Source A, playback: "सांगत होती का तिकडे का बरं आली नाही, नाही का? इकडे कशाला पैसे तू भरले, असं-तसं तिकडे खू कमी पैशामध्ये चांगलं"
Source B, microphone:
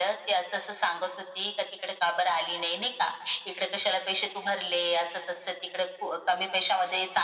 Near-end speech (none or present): none